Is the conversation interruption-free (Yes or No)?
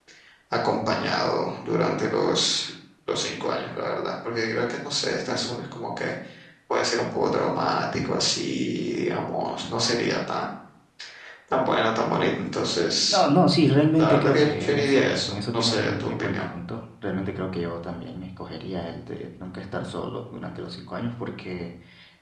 No